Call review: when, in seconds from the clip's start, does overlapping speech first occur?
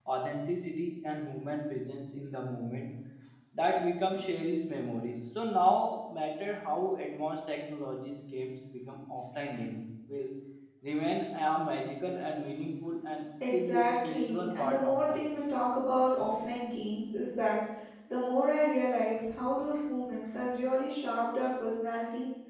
13 s

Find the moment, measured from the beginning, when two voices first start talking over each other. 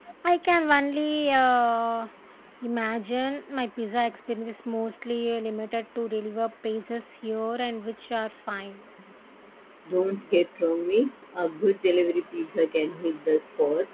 none

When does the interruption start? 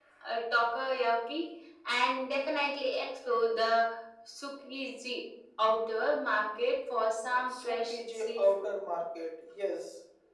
7 s

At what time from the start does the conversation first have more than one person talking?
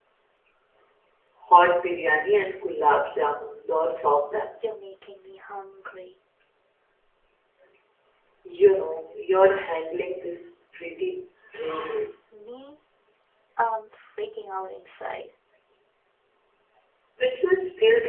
none

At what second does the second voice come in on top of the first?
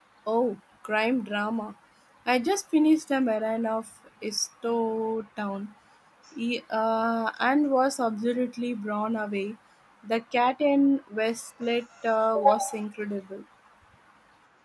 none

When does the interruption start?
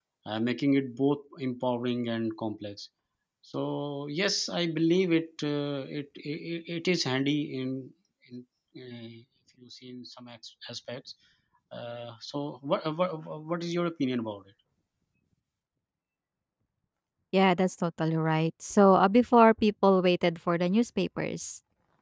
none

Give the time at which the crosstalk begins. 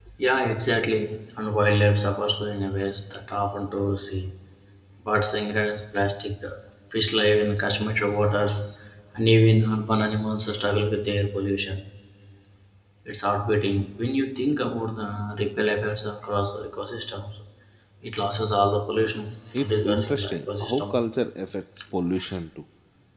20 s

